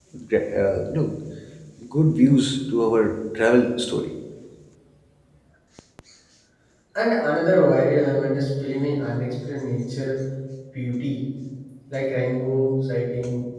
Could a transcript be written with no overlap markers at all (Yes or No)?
Yes